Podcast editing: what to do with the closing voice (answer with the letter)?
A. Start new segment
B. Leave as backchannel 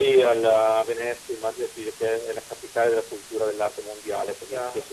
B